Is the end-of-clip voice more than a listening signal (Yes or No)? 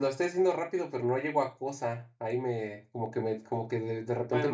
Yes